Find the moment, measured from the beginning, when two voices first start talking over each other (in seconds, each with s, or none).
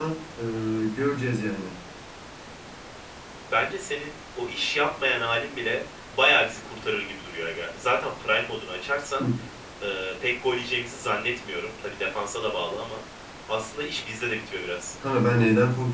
none